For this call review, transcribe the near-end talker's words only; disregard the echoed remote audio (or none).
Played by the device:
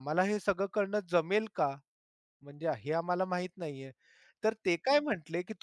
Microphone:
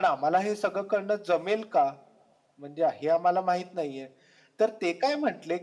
none